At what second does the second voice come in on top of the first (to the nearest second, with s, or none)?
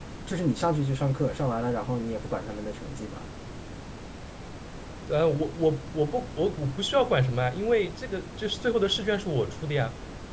none